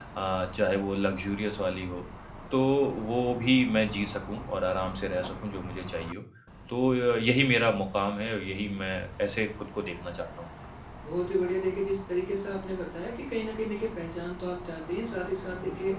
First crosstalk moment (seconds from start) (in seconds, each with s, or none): none